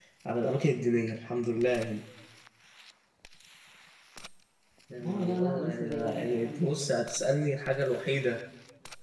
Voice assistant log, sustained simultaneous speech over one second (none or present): present